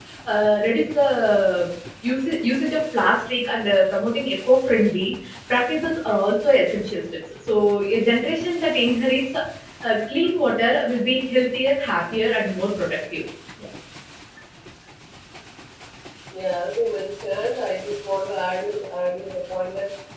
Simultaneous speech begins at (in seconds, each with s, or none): none